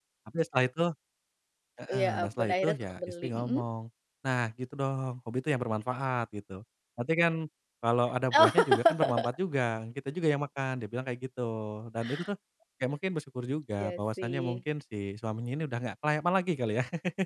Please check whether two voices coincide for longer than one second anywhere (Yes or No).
Yes